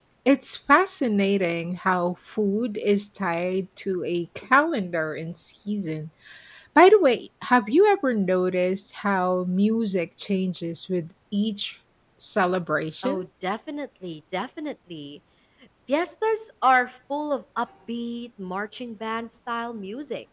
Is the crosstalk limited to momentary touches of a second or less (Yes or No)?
Yes